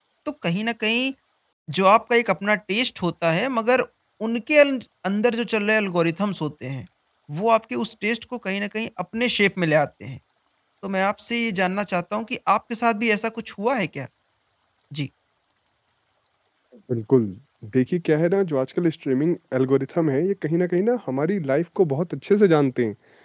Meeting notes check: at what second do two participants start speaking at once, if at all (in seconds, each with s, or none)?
none